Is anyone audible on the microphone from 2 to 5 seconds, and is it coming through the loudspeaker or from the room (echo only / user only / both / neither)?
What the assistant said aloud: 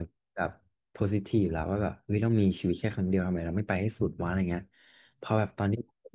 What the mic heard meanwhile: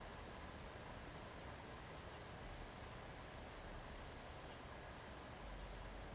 neither